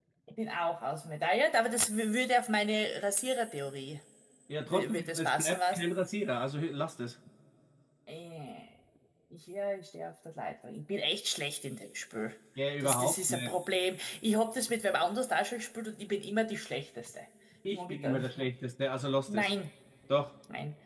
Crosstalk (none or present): present